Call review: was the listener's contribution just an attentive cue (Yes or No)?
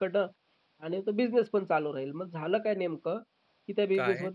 Yes